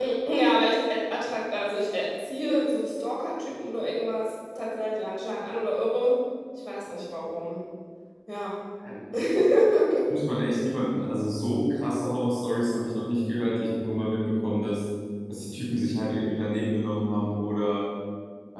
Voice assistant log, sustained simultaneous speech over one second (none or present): none